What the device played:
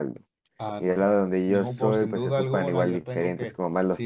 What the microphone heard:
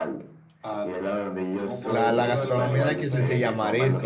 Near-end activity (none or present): present